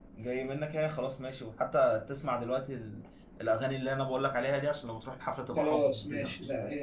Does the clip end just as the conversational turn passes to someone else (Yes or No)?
Yes